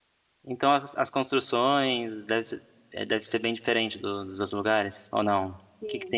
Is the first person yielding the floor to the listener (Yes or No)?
Yes